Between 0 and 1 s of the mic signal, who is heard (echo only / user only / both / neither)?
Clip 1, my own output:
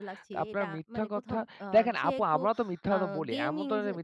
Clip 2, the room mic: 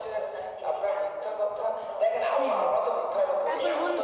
echo only